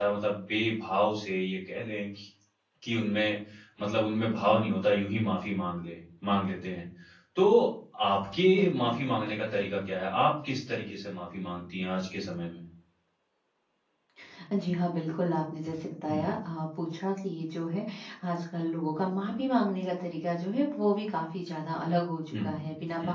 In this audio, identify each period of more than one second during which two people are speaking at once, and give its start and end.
none

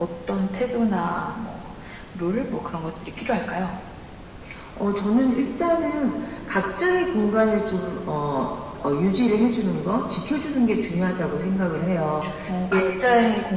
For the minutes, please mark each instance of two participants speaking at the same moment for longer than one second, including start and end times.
none

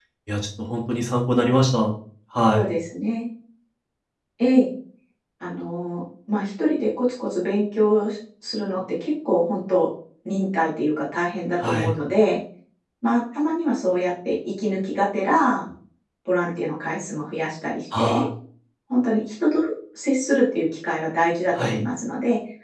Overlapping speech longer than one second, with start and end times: none

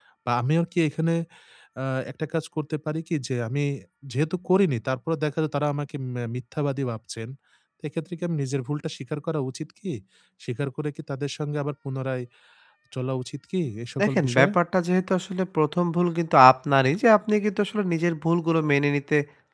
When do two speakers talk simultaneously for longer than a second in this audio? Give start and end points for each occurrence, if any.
none

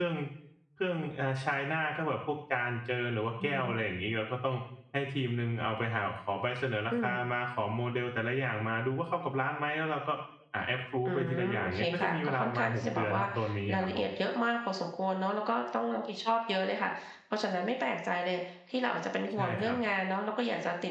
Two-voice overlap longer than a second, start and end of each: 11.1-13.2

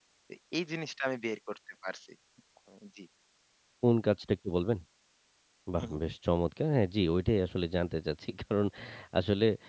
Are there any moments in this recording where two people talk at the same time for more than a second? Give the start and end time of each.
none

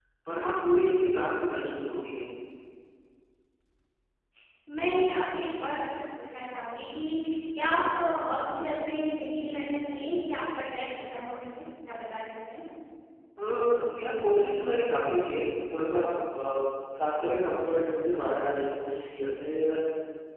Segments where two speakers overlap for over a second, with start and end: none

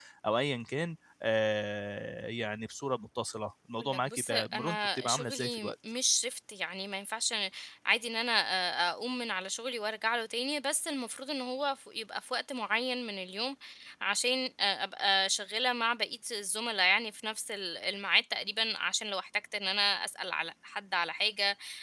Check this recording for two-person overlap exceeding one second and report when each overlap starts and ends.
3.8-5.7

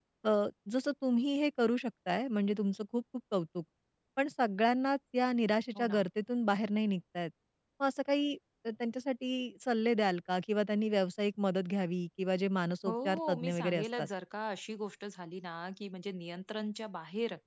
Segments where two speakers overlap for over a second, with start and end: 12.8-14.1

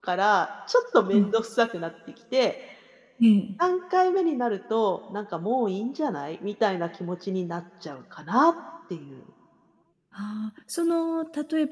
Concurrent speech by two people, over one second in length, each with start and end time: none

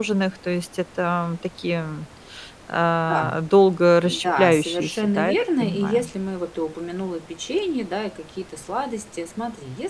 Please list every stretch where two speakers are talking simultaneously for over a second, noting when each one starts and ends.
4.0-6.1

